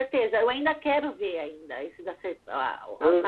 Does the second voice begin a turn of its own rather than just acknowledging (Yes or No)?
No